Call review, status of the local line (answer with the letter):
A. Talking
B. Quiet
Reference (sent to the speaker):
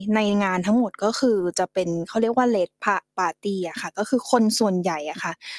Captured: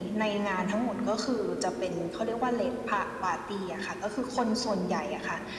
B